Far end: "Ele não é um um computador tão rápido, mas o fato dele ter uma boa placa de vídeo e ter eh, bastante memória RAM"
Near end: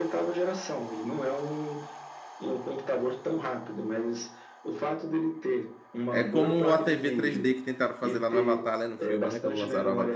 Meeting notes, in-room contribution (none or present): present